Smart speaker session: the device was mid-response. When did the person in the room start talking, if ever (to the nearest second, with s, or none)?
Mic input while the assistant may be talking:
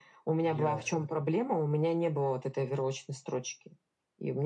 0 s